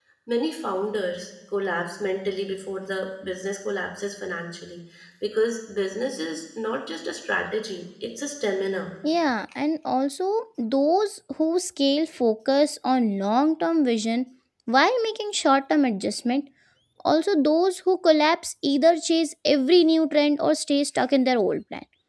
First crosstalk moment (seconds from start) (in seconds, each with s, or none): none